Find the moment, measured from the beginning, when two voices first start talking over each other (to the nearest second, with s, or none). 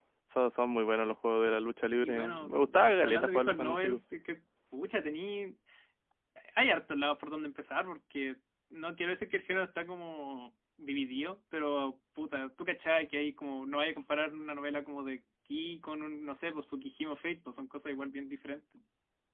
2 s